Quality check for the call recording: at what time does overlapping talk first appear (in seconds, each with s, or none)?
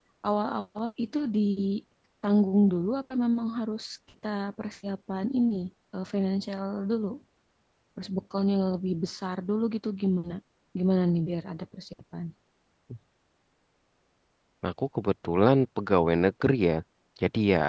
none